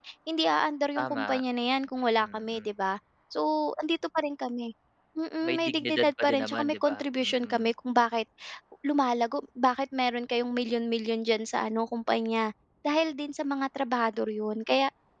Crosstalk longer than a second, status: present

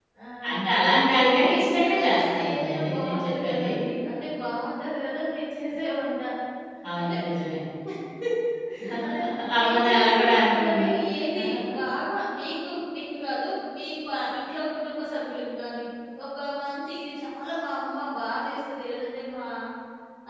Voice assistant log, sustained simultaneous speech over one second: present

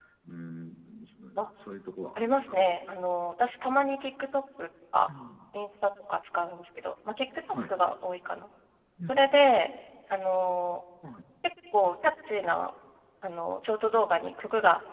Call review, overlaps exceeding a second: none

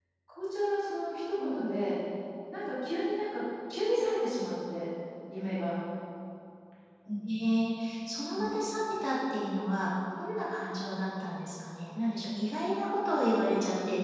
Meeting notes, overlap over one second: none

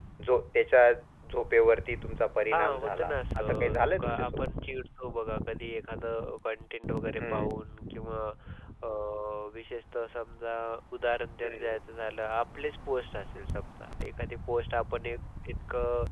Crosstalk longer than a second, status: present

